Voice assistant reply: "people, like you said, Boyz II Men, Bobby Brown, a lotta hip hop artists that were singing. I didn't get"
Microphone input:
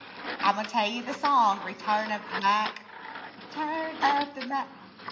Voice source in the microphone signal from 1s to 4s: user only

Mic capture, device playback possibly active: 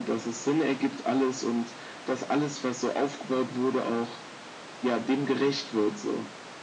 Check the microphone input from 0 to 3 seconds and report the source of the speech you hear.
echo only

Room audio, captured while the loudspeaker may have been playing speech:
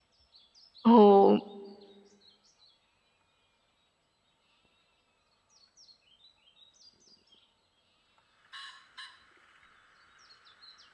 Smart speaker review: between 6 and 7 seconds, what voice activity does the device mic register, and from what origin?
neither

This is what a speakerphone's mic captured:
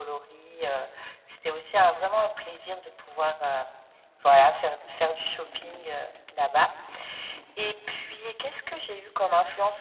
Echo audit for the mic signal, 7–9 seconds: echo only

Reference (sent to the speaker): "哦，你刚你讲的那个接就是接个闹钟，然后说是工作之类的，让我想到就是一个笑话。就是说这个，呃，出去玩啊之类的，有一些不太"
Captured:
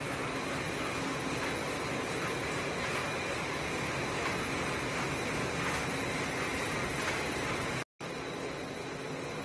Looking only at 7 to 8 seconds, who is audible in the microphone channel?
neither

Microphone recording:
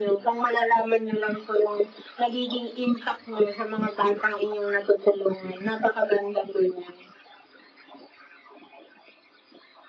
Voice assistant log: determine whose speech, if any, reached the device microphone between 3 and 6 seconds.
echo only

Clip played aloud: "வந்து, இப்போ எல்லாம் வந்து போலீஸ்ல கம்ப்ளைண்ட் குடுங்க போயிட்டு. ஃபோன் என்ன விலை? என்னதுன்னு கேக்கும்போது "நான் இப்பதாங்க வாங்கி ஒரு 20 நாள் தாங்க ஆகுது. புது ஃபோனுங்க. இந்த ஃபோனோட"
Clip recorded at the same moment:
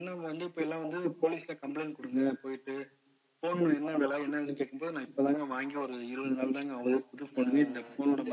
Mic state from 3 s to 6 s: echo only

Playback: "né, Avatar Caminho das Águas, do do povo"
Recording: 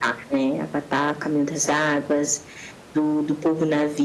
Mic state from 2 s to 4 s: echo only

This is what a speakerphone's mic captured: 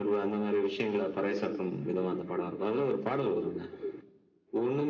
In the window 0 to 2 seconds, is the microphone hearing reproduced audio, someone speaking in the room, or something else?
echo only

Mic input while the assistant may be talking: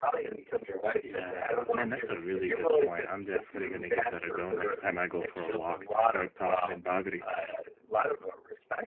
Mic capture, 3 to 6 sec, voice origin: both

